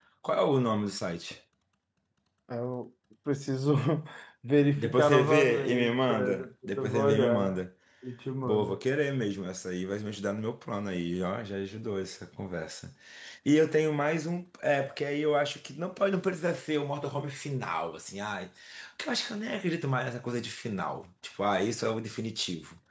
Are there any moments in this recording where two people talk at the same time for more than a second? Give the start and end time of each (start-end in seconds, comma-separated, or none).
4.8-7.6